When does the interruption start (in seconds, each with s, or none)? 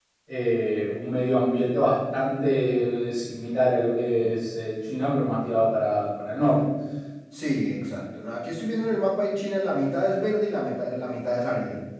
none